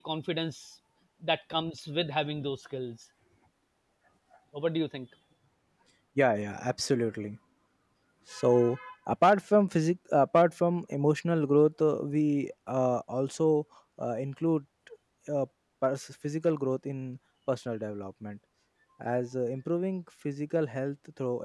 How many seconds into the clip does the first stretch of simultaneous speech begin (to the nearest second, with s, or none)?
none